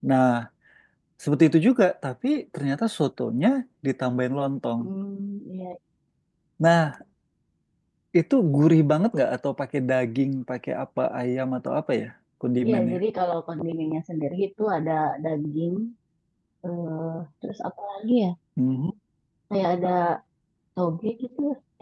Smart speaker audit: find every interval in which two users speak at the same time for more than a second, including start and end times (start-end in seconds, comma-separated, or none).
none